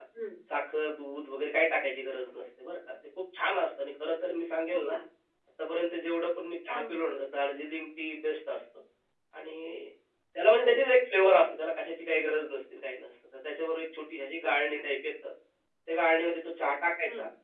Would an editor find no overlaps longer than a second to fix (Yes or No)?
Yes